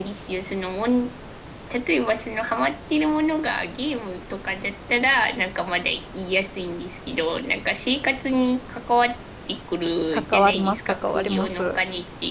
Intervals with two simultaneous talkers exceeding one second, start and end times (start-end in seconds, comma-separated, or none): 10.1-11.8